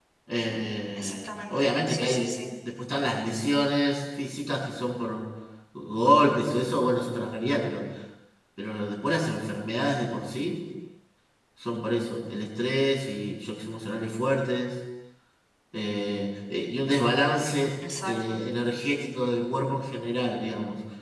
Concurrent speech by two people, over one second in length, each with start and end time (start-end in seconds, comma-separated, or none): 1.0-2.3